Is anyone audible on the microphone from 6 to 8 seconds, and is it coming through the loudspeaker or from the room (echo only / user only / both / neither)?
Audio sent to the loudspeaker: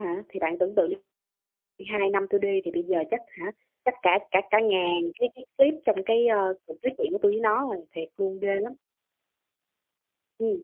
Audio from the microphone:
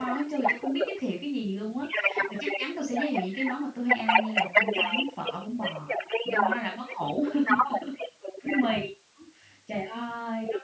both